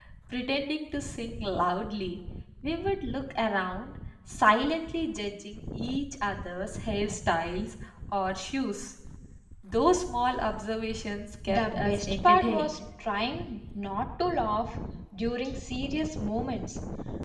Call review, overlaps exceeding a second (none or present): present